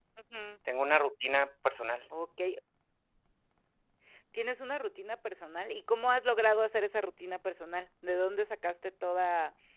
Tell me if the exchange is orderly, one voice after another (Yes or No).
Yes